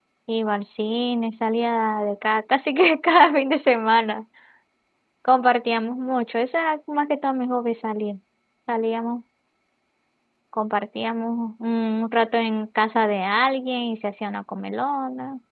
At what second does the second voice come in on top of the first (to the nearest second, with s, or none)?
none